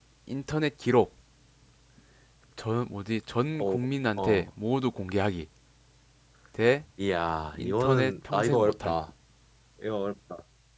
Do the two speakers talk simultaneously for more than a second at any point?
Yes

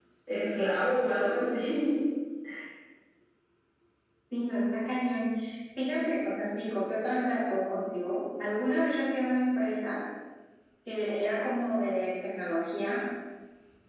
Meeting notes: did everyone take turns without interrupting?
Yes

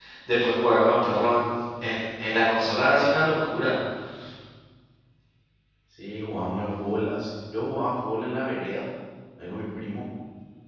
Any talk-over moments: No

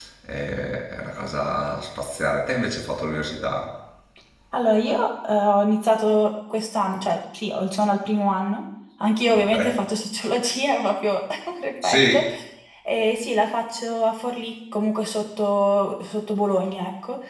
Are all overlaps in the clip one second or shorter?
Yes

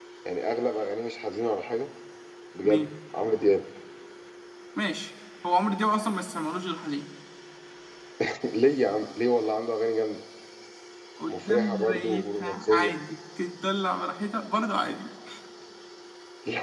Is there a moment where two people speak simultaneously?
Yes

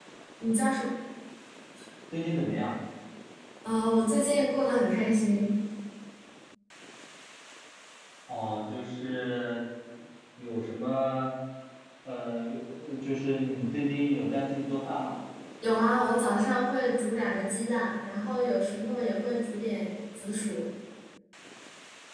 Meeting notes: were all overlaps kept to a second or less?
Yes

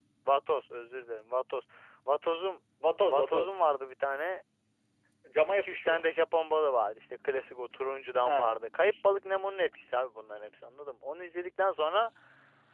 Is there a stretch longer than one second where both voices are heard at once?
No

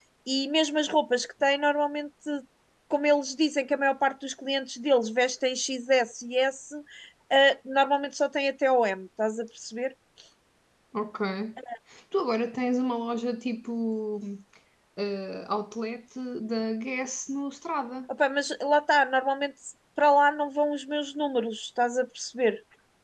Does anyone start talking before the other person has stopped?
No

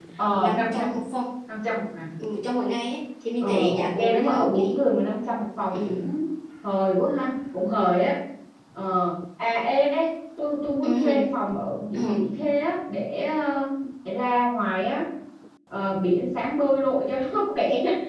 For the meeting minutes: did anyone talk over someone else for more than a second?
Yes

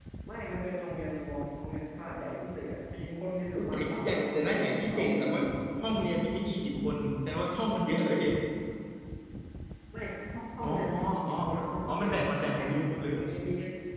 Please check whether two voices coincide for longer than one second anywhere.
Yes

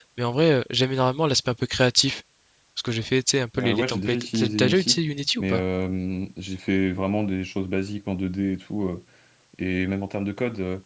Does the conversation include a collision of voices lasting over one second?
Yes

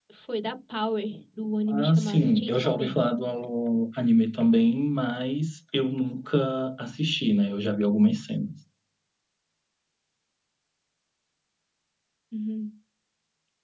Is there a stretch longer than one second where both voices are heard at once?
Yes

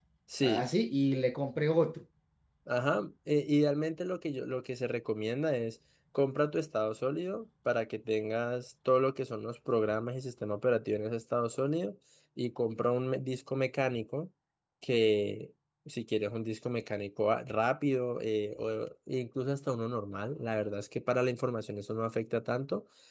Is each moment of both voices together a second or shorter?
Yes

